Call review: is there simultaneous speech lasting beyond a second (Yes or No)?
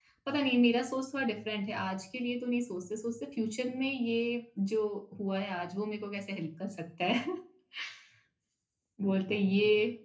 No